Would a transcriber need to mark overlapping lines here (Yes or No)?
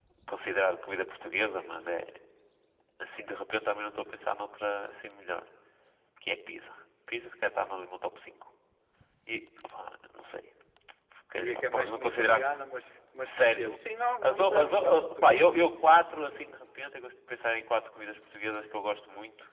Yes